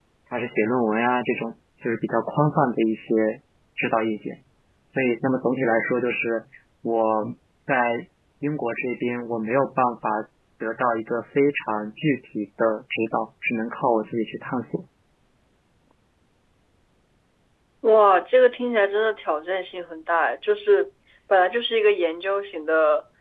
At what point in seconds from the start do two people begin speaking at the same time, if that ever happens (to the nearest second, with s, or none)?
none